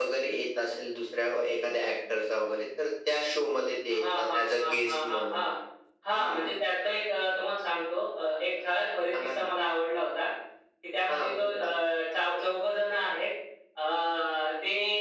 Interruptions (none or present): present